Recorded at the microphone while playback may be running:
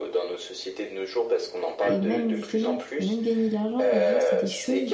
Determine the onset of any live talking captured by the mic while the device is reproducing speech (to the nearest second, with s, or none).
2 s